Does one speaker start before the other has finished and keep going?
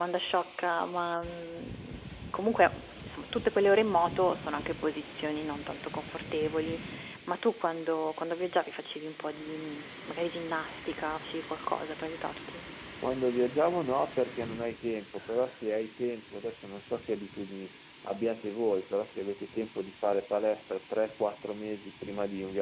No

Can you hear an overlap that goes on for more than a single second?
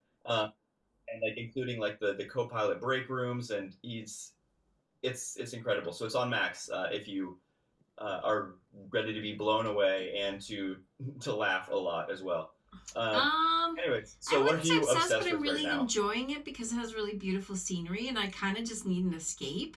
Yes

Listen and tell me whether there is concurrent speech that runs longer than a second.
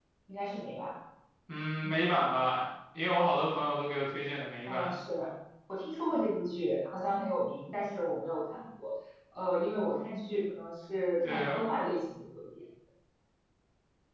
No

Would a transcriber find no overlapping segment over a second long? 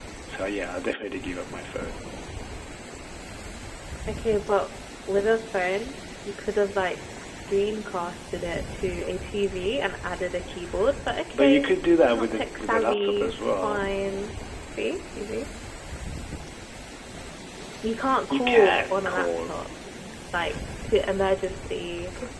No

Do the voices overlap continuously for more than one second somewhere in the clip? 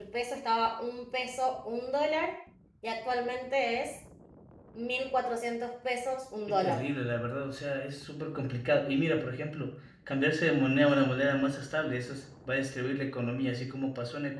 No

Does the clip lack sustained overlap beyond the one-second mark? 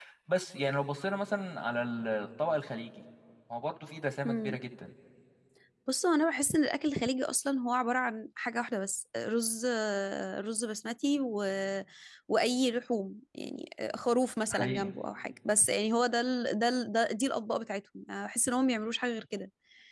Yes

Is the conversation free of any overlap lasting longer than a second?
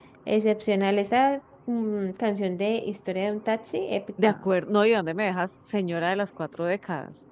Yes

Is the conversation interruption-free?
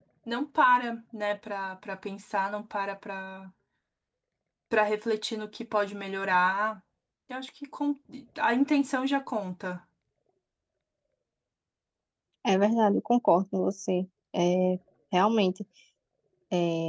Yes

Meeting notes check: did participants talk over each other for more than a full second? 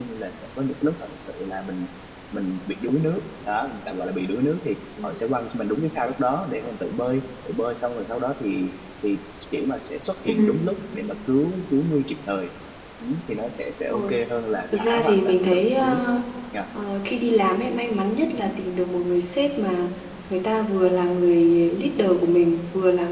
Yes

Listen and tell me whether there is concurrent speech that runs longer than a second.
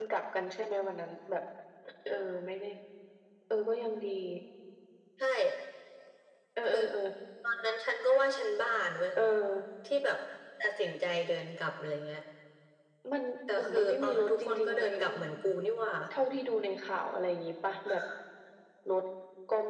Yes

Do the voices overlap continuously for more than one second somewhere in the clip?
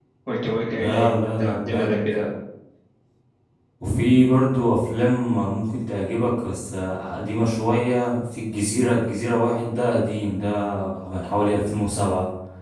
Yes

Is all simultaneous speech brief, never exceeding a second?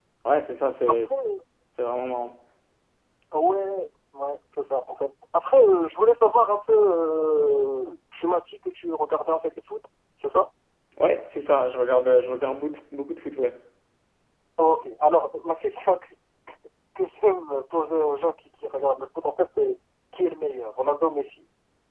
Yes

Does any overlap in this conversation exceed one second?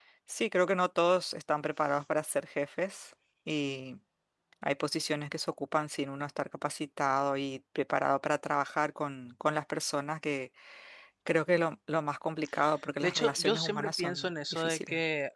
Yes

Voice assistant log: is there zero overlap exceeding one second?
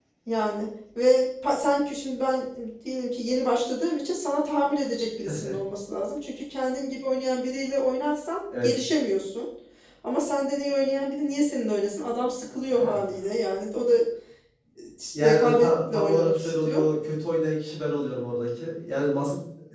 No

